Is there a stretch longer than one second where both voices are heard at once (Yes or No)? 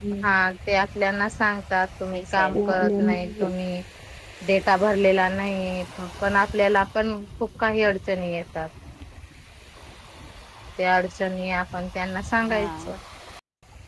Yes